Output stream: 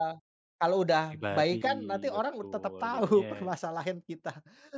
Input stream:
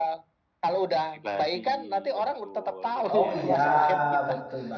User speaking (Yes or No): Yes